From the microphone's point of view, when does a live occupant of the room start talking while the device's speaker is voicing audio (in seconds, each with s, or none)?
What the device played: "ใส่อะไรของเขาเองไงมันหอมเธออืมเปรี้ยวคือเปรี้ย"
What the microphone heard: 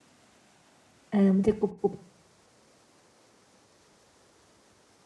1.1 s